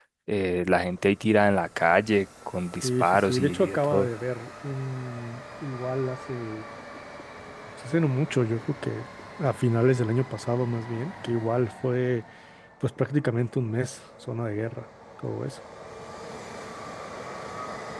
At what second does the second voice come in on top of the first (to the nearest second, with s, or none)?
3 s